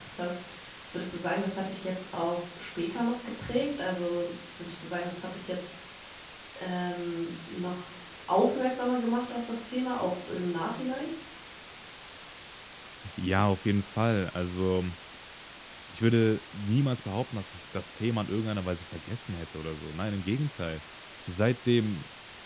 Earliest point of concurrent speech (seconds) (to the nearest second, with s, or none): none